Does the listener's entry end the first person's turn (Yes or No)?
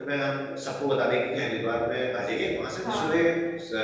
No